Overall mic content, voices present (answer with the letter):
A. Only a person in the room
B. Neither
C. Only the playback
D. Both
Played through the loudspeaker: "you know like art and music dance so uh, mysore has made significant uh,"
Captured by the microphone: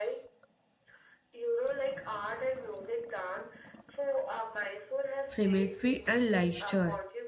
D